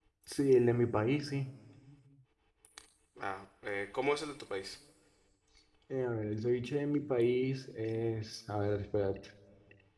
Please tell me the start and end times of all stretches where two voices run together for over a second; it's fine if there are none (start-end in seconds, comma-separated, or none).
none